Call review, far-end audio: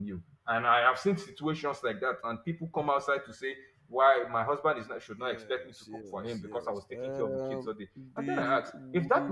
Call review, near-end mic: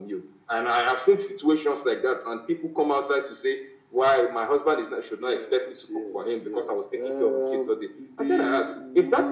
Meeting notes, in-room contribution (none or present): none